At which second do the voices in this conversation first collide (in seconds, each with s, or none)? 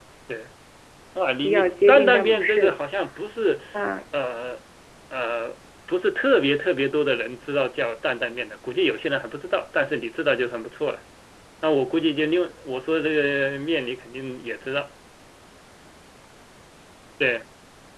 1.4 s